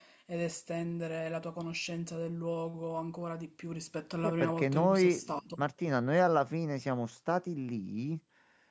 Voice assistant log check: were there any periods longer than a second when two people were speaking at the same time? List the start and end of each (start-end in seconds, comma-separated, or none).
4.2-5.6